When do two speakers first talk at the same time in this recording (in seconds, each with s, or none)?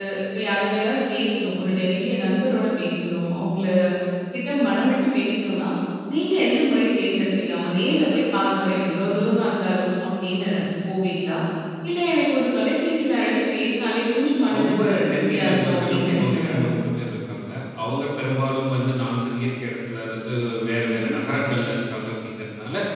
14.5 s